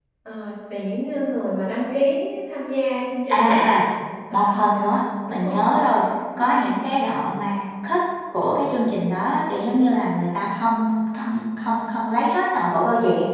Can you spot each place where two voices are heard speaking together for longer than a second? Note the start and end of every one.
none

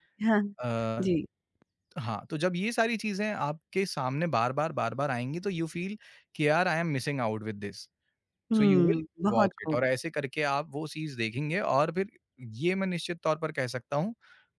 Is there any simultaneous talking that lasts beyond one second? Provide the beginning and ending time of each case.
8.6-9.8

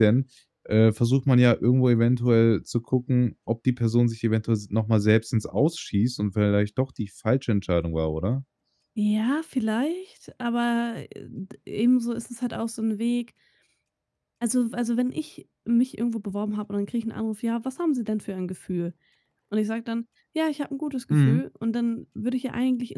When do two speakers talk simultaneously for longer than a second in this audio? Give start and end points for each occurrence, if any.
none

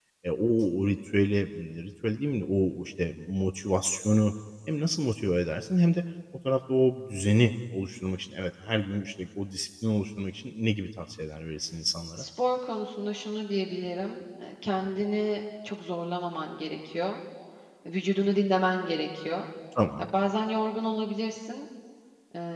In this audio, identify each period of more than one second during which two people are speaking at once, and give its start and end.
none

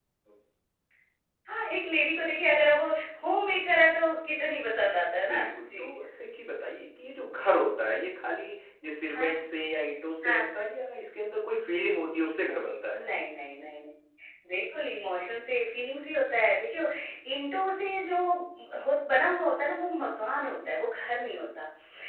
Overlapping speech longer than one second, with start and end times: none

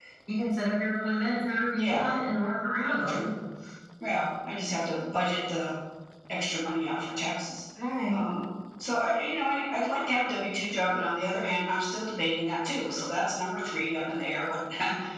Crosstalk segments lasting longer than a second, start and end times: none

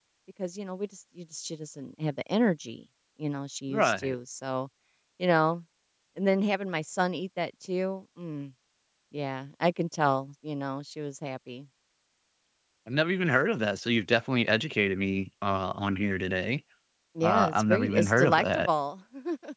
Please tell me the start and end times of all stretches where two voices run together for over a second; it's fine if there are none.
17.2-18.7

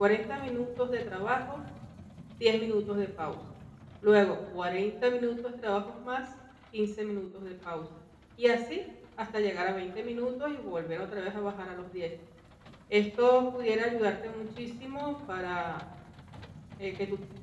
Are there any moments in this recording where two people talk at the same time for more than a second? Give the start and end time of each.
none

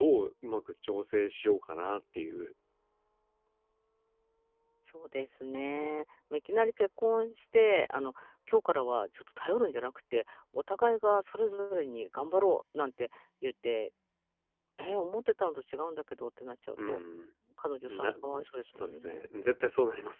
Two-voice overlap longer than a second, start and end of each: 17.9-19.2

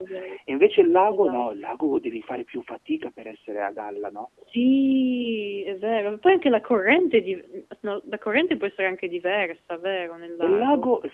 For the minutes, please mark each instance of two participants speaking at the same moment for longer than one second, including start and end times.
none

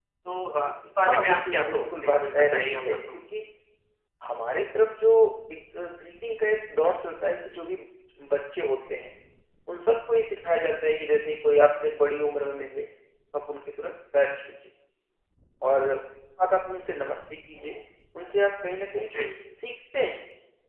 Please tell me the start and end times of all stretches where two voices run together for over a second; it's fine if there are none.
1.0-3.2

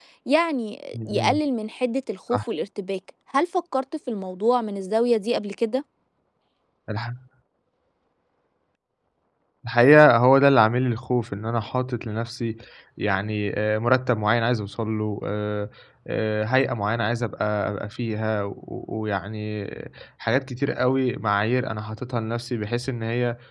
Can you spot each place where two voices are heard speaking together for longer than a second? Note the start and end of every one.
none

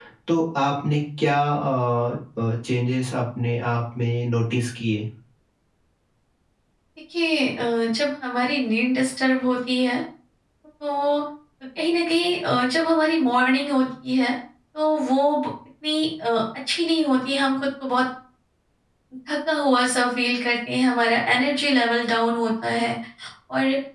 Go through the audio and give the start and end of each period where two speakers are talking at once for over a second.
none

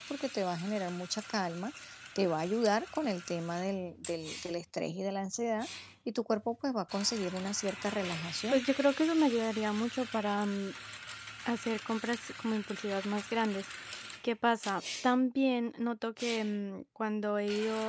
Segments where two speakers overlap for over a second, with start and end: none

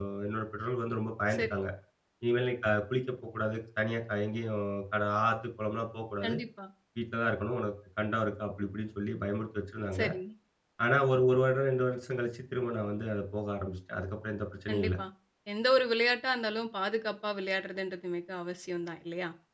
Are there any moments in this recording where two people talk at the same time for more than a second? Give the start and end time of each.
none

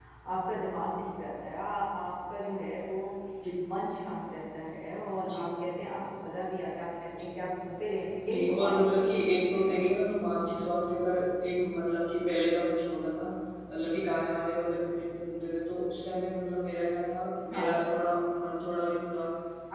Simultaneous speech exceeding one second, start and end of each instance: 8.2-9.8

